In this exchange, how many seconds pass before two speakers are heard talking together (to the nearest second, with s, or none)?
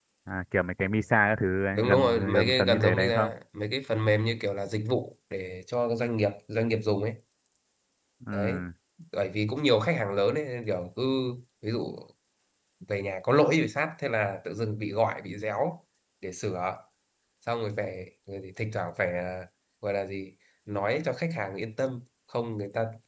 2 s